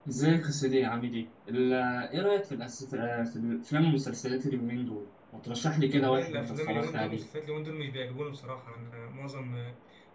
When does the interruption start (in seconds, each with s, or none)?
5.9 s